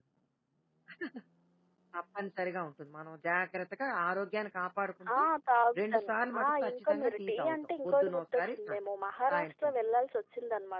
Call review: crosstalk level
present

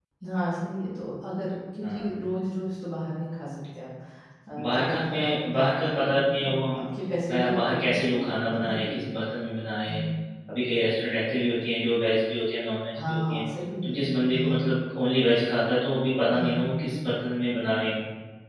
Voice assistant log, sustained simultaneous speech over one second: present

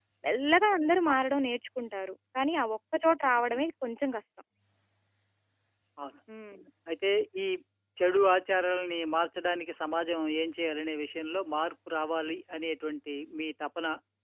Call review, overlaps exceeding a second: none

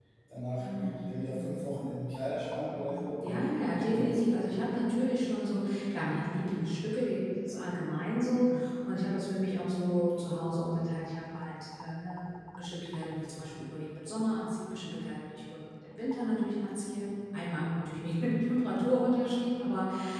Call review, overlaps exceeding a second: present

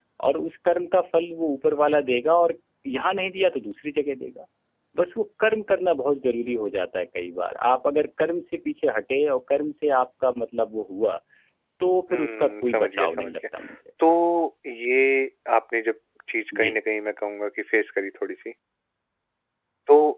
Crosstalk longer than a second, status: present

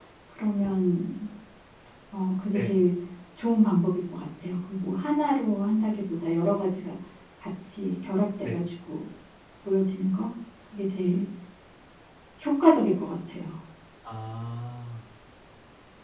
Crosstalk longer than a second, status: none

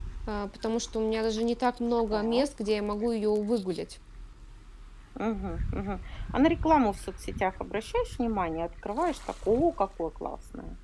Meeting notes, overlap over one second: none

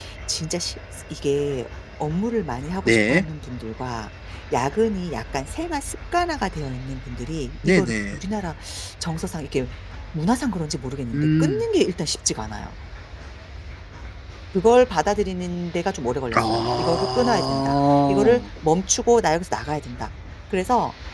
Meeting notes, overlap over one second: present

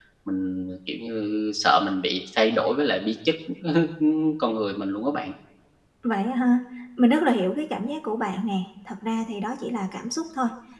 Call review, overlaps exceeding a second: none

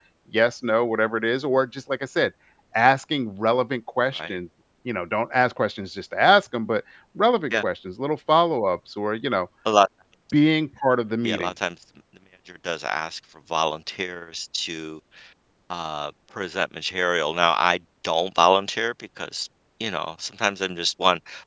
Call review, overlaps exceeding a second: none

